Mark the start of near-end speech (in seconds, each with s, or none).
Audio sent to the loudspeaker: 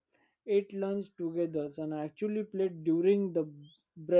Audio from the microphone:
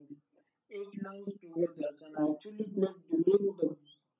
none